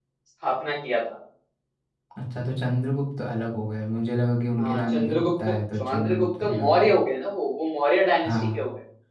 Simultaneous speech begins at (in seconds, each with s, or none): 4.6 s